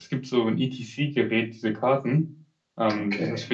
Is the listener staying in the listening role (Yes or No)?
Yes